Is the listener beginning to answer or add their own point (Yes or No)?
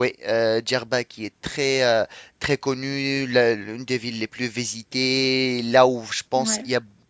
No